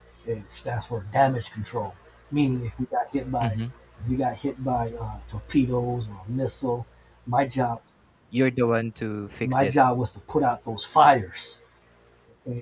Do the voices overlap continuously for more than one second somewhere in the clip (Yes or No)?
No